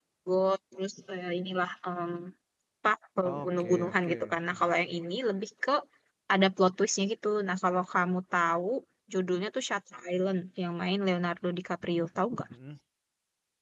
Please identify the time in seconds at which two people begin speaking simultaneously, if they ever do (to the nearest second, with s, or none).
3 s